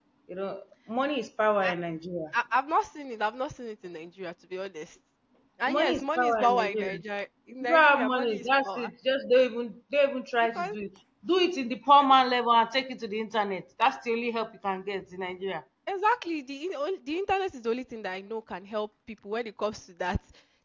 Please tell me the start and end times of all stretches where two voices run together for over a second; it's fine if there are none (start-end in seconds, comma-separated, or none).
5.7-7.0, 7.6-8.9